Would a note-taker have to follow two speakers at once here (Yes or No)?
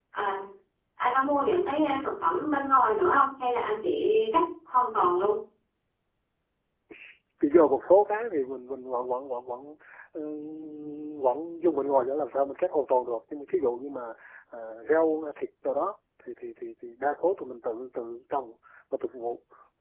No